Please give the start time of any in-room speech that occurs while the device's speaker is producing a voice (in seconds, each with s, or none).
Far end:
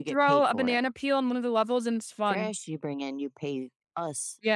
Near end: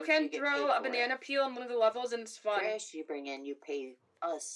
none